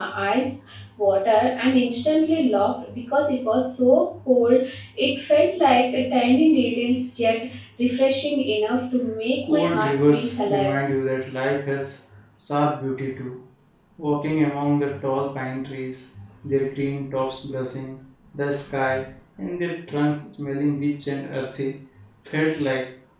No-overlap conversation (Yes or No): No